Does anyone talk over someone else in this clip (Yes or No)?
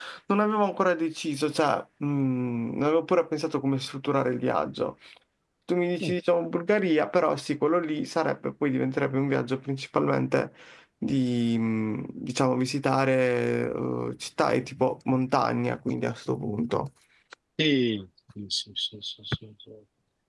No